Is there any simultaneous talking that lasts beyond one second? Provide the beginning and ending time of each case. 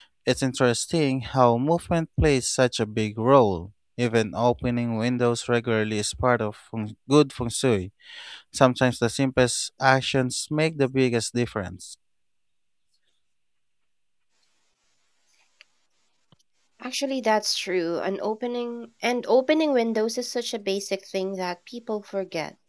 none

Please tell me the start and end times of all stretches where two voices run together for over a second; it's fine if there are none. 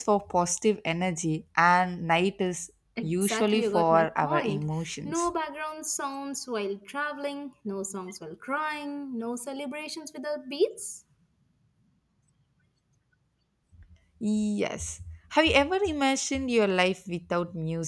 3.0-4.6

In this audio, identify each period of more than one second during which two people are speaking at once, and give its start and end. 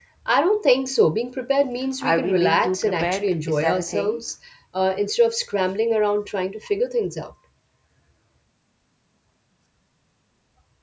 2.0-4.2

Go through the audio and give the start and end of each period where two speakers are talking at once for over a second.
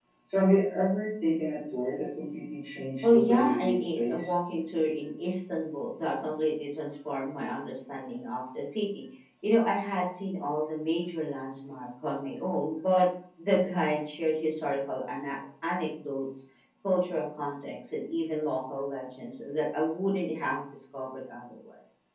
3.0-4.3

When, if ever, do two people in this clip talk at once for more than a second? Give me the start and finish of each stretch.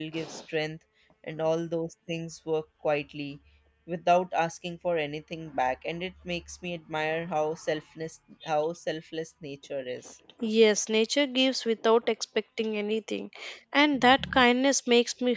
none

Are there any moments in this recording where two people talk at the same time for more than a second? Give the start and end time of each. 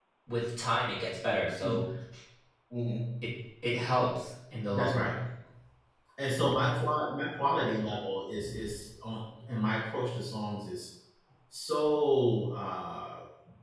none

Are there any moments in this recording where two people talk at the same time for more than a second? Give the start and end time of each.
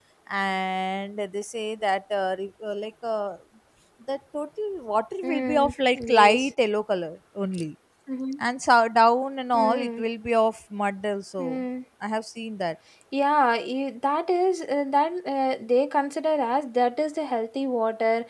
5.2-6.5

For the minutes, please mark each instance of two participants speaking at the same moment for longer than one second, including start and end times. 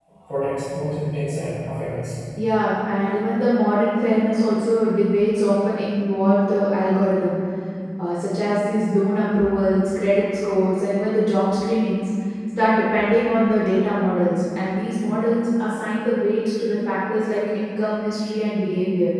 none

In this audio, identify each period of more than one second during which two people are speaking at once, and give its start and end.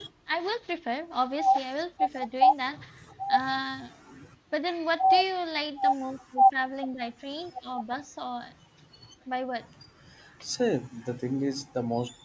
none

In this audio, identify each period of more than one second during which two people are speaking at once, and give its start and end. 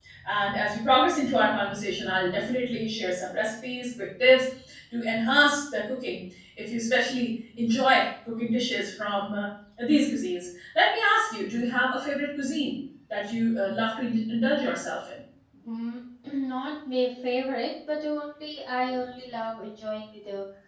none

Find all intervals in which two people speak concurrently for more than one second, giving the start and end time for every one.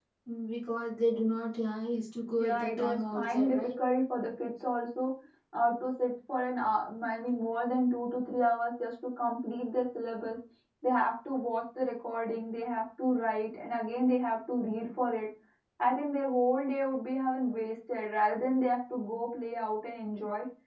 2.4-3.6

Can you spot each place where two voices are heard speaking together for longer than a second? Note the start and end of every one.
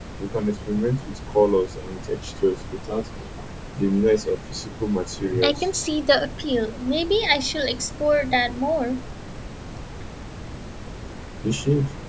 none

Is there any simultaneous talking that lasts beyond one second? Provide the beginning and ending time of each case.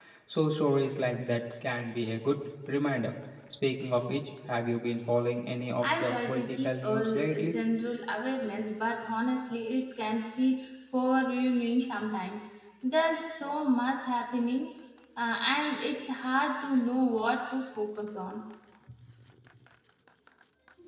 5.8-7.6

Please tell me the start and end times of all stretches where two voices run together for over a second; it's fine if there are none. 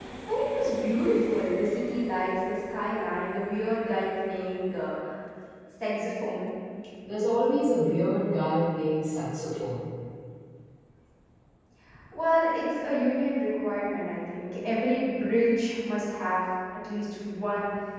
none

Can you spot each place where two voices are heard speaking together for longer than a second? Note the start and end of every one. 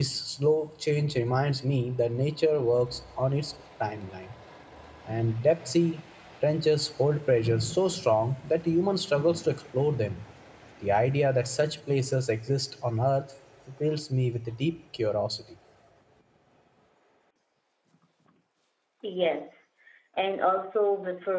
none

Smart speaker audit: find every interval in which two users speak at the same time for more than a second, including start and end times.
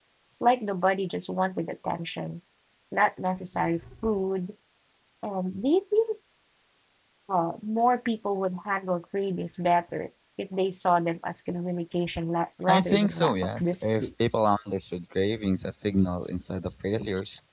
12.7-14.1

